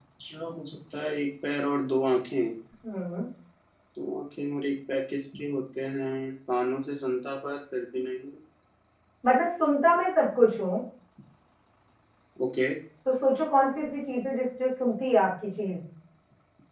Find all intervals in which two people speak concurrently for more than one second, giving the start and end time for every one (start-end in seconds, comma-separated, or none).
none